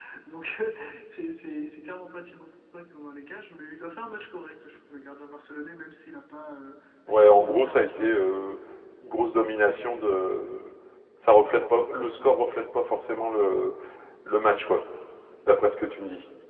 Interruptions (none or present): present